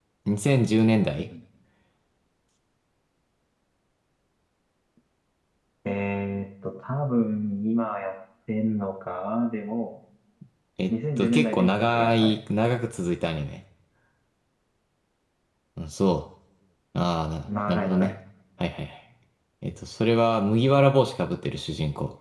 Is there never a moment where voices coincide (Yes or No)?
No